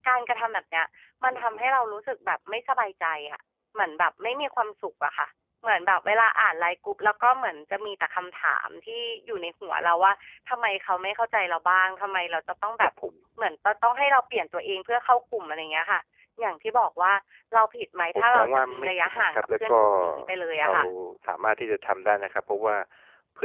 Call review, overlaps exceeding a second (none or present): present